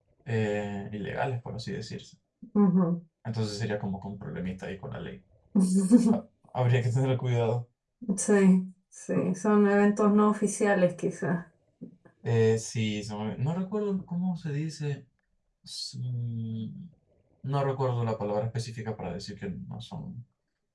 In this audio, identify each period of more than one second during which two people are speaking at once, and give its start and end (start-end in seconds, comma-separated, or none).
none